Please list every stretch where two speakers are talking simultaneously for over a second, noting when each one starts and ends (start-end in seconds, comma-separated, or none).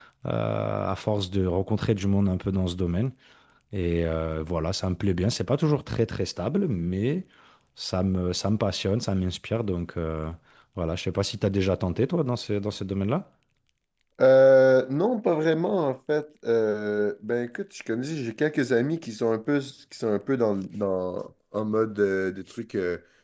none